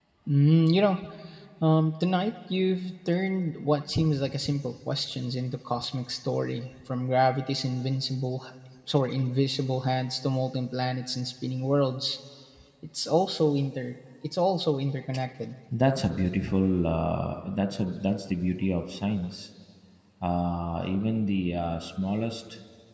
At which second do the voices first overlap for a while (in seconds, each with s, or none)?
none